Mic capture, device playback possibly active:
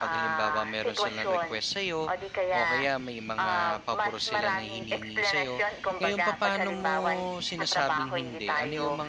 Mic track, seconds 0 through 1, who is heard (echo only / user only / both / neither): both